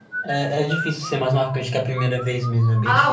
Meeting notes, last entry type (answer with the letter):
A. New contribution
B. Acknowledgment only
A